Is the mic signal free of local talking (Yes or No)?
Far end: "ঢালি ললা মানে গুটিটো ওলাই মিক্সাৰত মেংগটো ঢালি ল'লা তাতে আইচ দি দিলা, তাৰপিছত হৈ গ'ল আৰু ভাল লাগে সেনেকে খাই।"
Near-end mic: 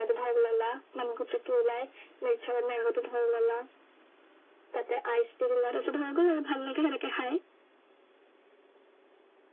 Yes